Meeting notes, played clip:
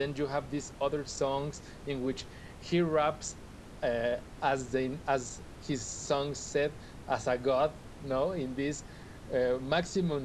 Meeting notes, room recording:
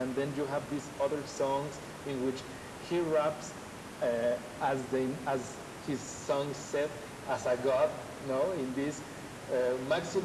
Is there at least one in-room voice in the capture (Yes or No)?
No